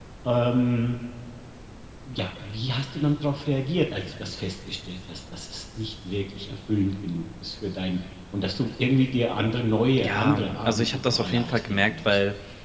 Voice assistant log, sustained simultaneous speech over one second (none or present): present